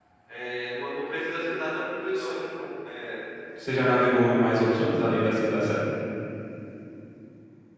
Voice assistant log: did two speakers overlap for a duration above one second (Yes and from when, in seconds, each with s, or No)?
No